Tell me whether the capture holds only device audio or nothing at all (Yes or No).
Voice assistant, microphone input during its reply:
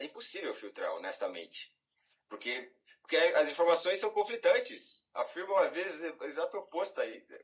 Yes